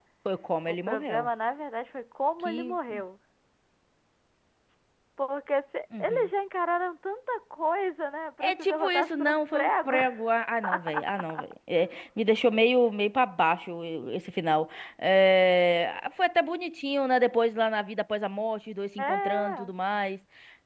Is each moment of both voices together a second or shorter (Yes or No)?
No